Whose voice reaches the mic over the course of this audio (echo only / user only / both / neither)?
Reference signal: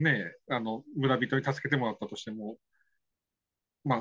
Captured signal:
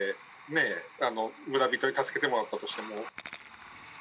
echo only